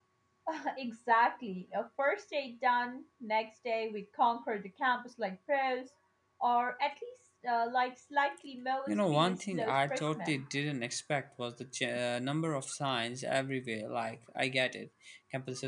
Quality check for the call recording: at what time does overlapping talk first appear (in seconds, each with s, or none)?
8.9 s